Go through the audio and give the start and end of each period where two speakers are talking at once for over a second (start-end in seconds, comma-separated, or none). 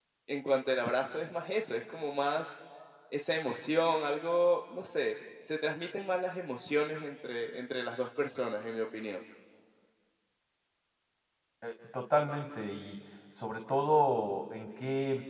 none